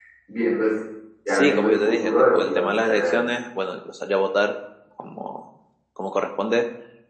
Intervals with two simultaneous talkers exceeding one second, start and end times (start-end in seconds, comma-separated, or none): 1.3-3.2